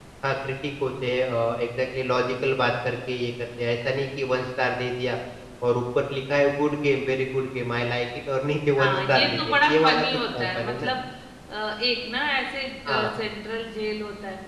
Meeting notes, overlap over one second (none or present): present